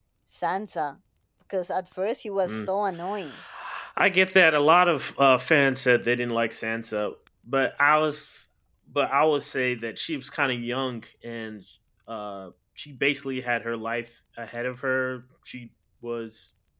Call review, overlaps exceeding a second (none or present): none